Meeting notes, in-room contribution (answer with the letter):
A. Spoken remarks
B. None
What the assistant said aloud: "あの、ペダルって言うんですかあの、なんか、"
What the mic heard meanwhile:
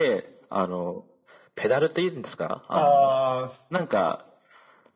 A